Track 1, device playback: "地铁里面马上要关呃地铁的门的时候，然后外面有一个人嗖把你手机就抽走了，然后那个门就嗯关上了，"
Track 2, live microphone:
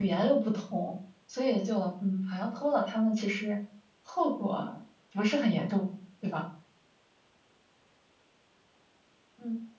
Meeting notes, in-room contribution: present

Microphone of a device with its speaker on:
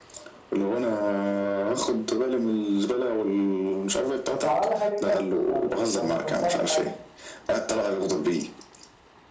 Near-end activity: present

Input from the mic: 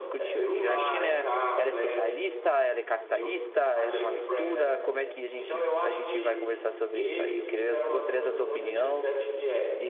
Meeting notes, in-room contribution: present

